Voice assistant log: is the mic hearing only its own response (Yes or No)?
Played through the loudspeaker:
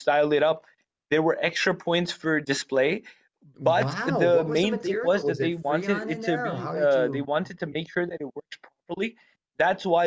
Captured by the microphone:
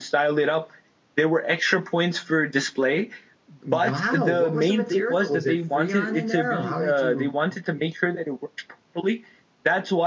Yes